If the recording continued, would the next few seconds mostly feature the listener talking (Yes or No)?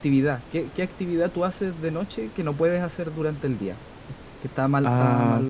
No